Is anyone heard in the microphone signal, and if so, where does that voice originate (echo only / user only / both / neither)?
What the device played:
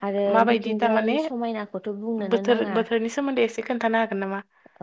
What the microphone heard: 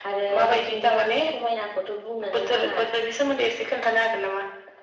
echo only